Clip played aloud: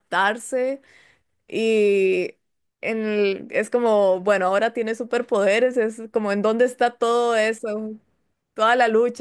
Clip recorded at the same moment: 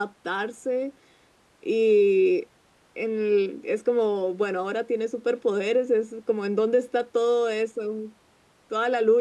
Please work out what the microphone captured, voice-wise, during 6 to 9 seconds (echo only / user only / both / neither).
echo only